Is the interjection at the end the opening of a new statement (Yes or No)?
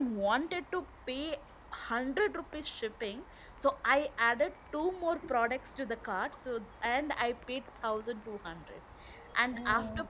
No